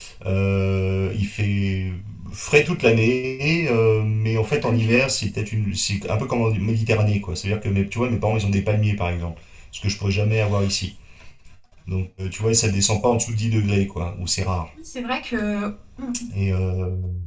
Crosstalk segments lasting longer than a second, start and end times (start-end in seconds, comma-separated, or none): none